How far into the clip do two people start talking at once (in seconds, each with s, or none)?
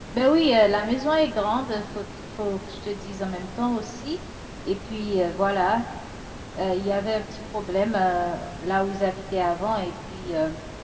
none